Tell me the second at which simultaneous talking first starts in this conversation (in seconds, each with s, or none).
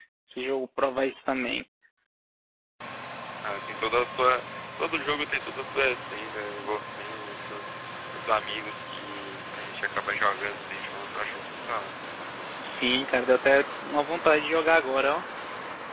none